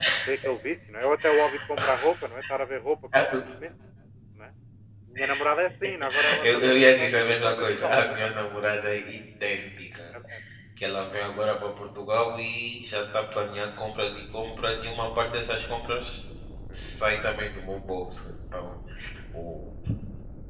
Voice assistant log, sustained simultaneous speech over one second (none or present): present